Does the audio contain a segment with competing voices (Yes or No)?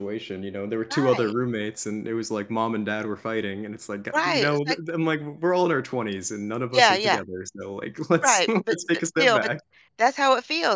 Yes